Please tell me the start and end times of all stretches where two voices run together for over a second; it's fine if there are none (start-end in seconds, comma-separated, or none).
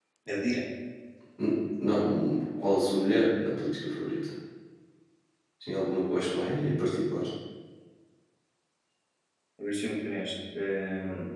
none